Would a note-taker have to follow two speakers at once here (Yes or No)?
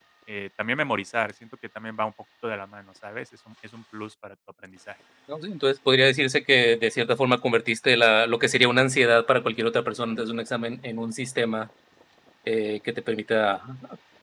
No